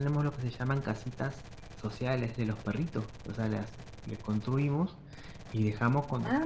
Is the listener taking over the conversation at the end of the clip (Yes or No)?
No